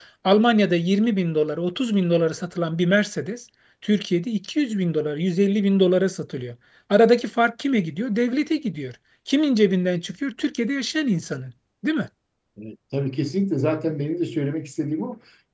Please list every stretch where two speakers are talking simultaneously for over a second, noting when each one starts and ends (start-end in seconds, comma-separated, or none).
none